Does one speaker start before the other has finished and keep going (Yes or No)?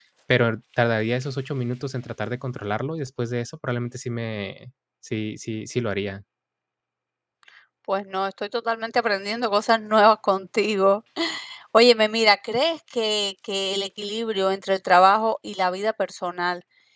No